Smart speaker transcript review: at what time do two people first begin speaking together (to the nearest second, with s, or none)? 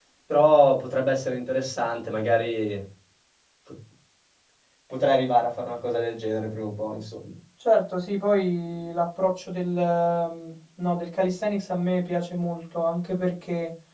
none